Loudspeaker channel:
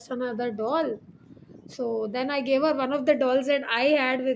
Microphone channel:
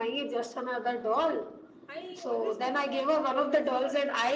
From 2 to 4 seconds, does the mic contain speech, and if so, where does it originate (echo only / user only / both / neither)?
both